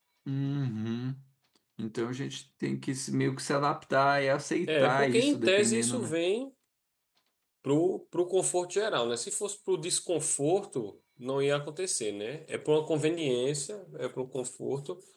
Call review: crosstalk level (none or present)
present